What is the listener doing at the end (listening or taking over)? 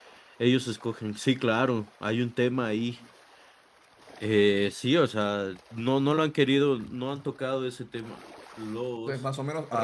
taking over